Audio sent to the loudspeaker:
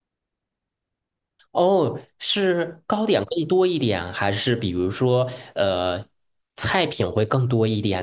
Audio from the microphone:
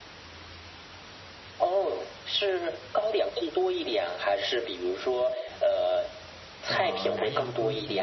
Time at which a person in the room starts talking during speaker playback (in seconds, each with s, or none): 6.6 s